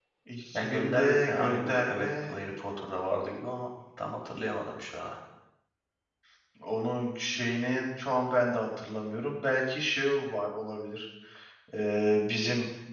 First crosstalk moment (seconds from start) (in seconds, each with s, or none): 0.5 s